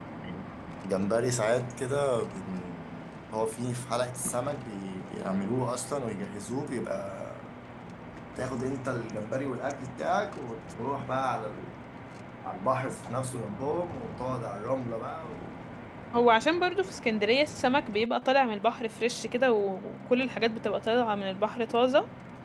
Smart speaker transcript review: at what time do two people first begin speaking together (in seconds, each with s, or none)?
none